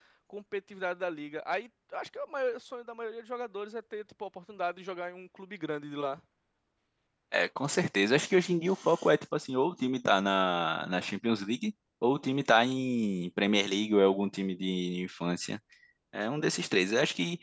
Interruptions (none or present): none